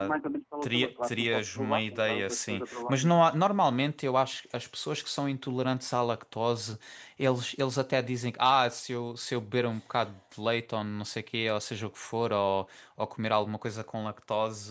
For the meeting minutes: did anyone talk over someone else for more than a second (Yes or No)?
Yes